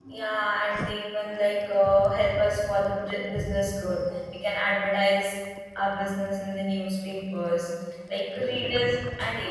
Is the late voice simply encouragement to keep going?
Yes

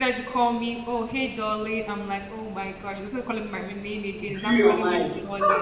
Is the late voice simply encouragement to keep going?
Yes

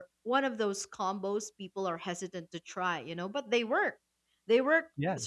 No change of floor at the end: Yes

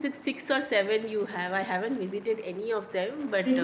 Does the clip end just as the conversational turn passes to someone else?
Yes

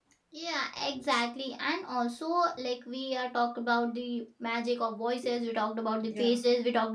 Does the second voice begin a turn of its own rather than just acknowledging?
No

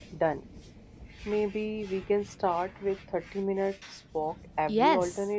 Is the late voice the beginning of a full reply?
Yes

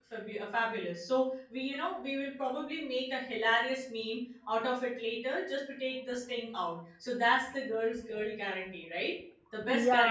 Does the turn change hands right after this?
Yes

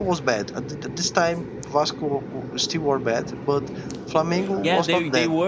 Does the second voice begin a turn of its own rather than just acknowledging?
Yes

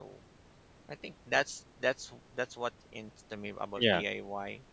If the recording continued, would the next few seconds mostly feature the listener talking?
No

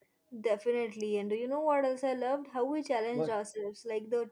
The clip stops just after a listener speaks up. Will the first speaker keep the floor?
Yes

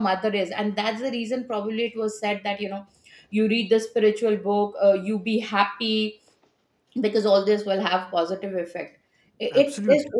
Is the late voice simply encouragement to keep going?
Yes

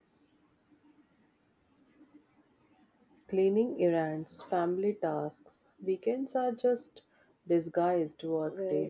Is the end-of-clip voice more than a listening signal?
Yes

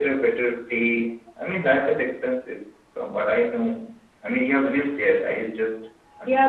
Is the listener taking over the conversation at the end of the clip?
Yes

